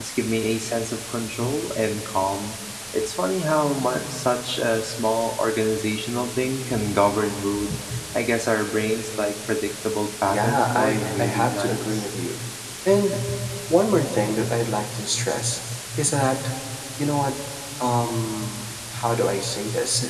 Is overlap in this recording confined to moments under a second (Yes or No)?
No